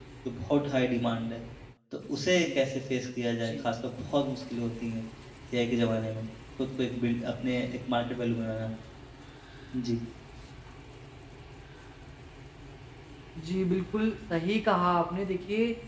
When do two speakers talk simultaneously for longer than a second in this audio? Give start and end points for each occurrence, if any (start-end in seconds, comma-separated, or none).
none